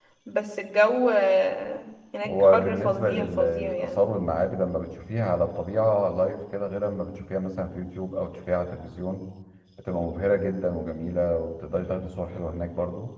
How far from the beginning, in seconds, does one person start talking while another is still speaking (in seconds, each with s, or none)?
2.2 s